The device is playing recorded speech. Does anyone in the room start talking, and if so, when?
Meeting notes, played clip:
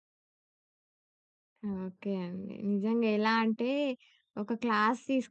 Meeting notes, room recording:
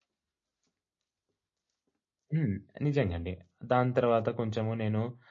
2.3 s

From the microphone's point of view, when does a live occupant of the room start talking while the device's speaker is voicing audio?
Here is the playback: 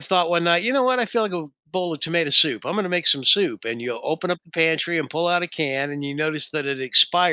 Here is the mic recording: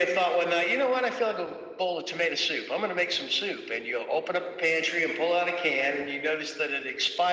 none

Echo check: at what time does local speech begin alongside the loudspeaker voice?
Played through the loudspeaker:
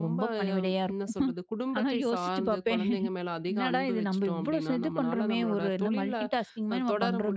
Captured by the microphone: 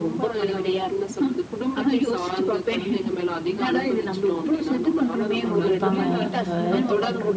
5.5 s

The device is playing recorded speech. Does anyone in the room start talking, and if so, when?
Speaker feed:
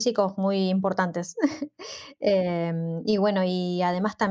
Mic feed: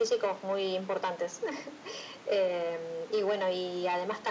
none

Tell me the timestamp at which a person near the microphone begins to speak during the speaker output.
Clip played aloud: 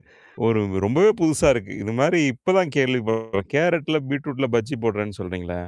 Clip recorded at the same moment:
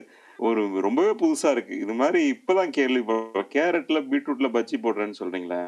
none

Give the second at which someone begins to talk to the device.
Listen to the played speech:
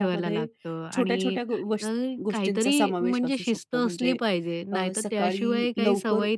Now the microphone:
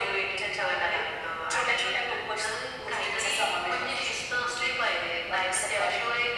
none

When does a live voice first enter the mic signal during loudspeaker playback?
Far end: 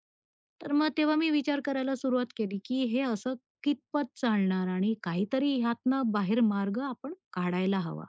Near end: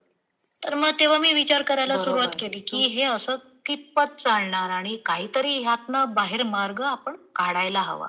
1.9 s

